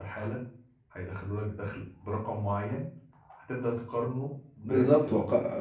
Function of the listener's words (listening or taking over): taking over